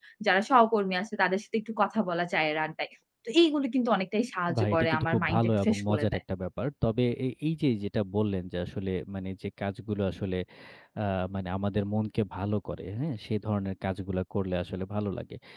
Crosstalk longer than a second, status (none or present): present